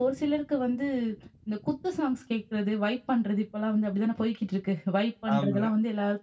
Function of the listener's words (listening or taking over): listening